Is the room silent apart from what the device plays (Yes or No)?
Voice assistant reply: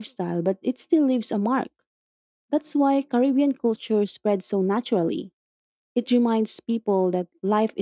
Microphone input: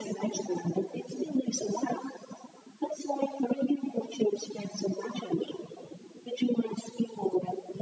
Yes